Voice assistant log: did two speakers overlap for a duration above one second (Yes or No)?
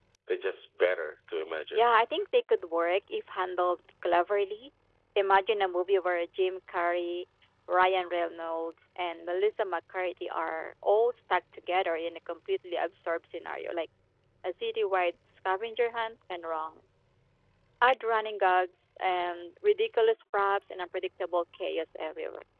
No